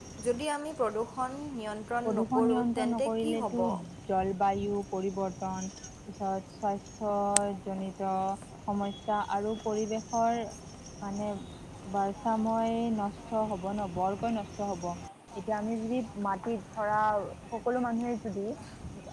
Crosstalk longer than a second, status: present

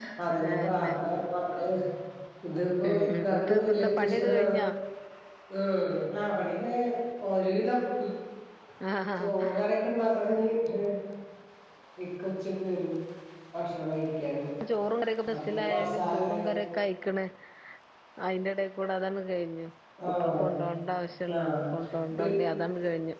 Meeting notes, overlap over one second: present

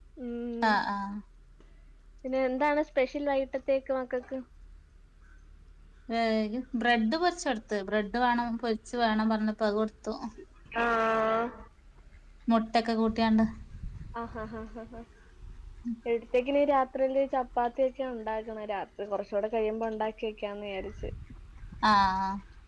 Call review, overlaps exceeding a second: none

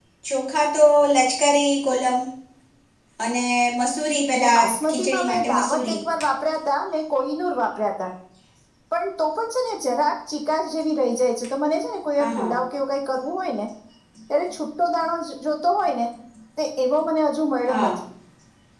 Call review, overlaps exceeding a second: present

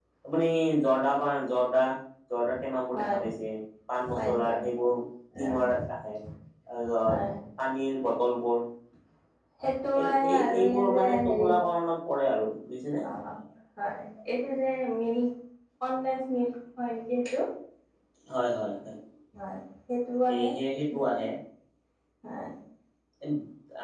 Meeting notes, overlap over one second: present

